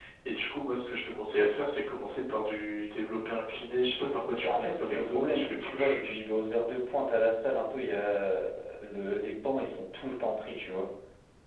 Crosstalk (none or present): present